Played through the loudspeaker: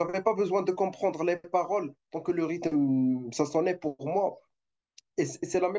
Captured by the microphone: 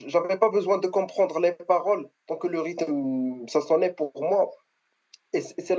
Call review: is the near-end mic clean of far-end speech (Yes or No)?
No